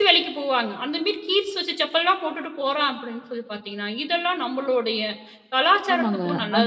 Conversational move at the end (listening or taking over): taking over